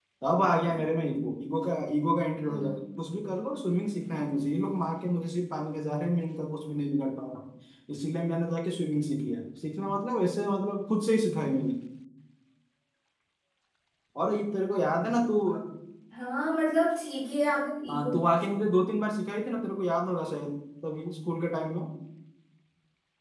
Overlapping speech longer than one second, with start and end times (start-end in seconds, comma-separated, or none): none